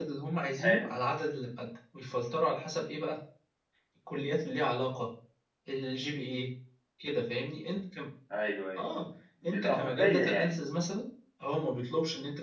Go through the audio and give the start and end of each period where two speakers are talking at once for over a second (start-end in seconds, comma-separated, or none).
9.4-10.7